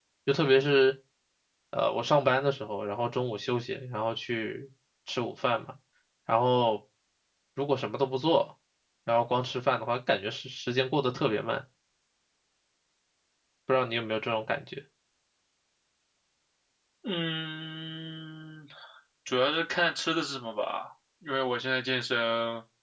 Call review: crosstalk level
none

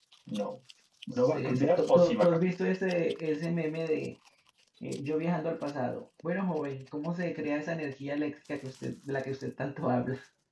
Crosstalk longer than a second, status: present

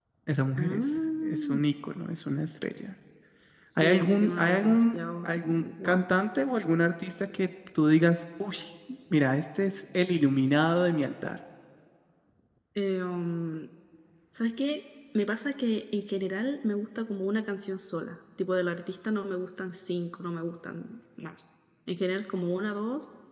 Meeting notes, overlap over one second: present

